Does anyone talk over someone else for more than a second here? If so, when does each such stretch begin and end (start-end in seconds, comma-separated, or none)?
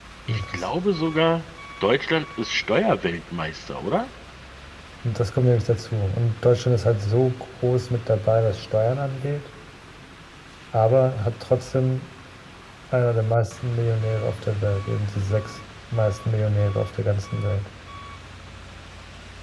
none